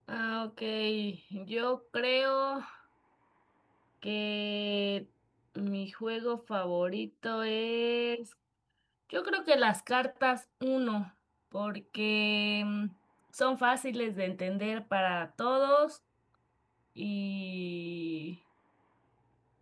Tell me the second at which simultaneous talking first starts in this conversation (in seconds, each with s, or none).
none